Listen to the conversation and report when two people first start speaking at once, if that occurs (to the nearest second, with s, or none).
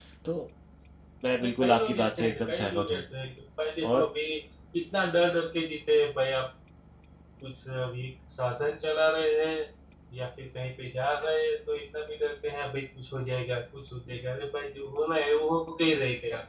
1 s